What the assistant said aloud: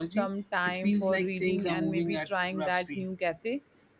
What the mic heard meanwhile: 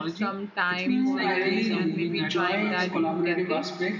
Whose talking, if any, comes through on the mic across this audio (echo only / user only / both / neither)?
both